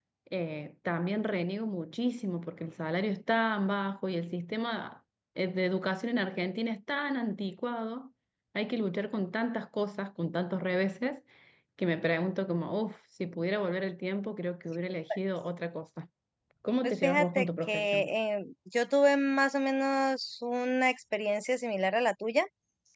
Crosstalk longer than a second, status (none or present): present